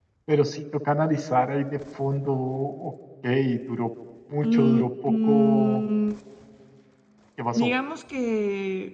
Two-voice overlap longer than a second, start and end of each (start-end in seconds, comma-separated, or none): 4.4-5.8